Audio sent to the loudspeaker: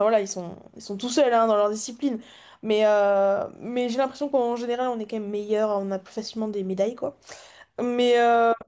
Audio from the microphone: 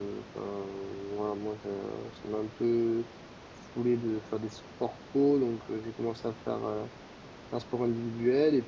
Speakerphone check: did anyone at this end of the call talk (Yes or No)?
Yes